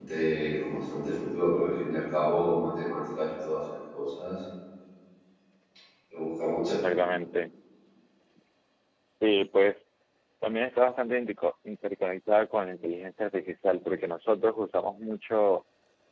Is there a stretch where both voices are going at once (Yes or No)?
No